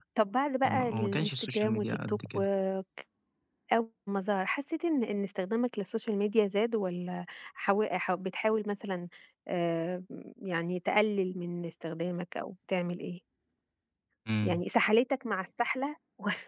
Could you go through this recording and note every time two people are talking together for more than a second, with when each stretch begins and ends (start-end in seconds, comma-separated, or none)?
0.6-2.4